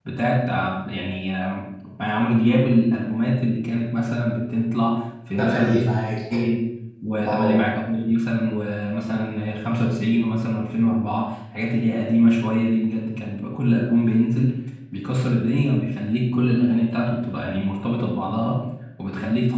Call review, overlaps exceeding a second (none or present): none